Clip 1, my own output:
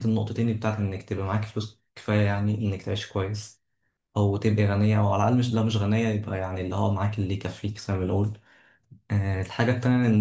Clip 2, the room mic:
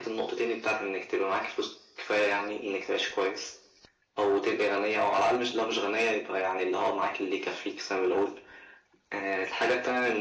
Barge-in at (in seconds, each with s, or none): none